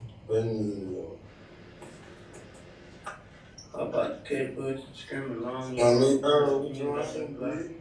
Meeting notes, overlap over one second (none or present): present